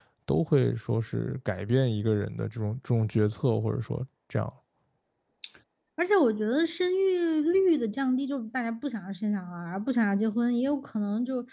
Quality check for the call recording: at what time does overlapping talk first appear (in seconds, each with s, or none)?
none